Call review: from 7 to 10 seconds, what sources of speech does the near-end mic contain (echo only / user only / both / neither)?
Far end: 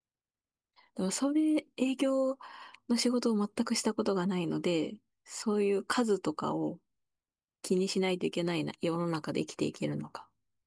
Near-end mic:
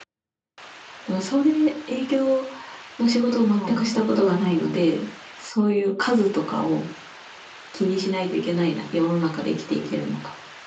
echo only